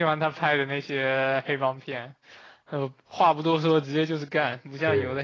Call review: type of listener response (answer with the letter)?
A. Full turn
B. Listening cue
B